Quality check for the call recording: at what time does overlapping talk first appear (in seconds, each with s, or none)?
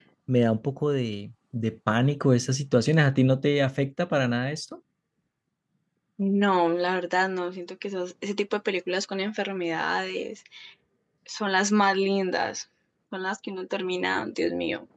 none